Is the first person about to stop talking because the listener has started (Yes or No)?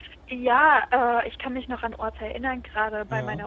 No